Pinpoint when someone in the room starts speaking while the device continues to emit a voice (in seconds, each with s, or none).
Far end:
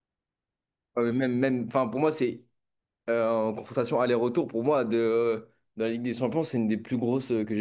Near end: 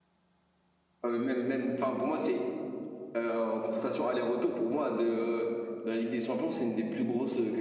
none